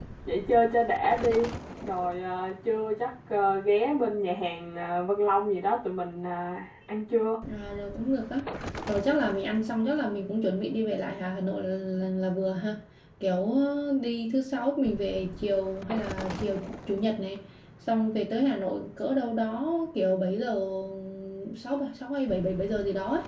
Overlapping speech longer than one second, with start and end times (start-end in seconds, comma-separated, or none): none